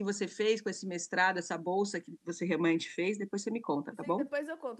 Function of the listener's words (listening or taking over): taking over